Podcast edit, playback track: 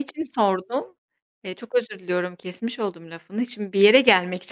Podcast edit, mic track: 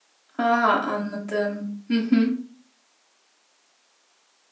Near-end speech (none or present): present